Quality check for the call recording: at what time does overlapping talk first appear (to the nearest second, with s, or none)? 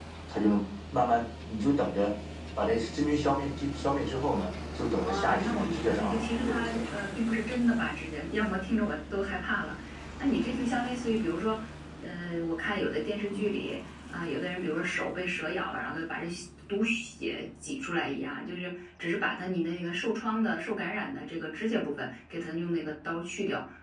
5 s